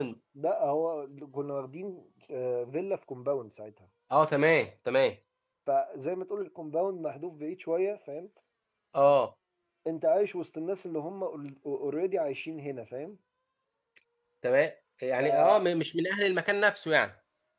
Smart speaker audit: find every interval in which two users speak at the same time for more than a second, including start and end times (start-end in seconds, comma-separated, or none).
none